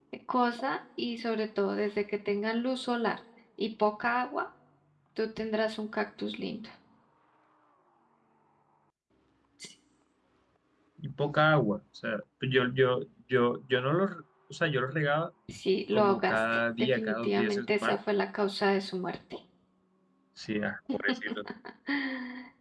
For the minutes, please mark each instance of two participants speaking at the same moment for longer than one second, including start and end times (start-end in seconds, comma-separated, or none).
15.9-18.0